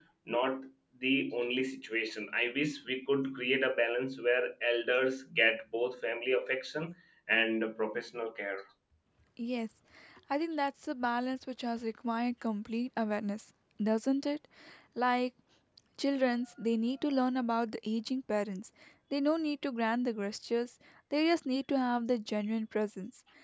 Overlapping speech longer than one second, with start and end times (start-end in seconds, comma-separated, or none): none